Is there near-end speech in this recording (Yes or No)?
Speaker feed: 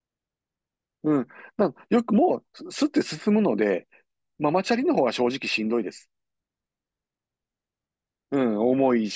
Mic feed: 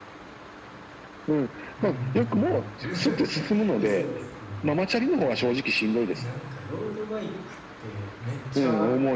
Yes